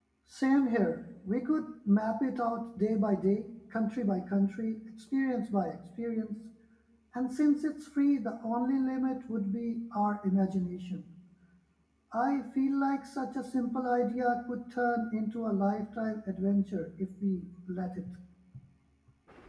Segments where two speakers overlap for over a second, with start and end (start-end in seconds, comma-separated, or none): none